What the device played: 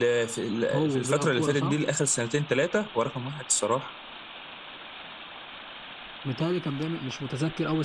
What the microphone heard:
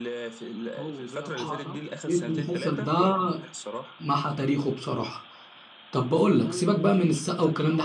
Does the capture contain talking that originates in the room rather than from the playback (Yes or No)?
Yes